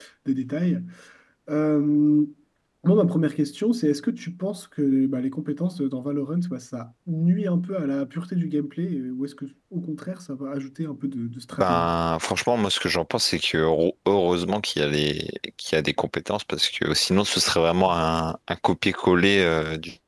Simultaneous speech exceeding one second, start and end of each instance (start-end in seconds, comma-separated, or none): none